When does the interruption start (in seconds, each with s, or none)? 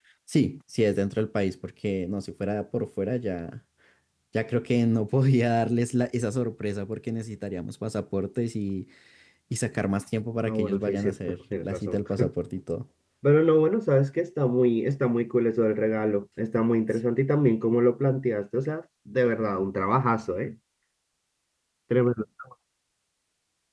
10.4 s